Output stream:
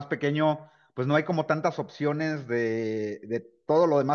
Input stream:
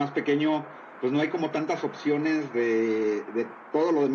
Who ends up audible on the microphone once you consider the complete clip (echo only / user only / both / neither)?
echo only